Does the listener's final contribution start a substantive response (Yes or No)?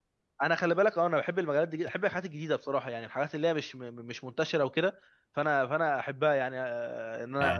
No